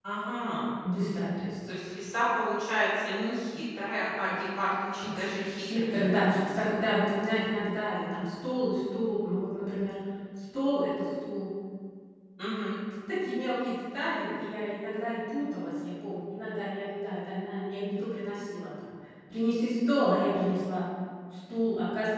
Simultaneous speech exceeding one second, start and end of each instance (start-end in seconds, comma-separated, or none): 5.2-6.9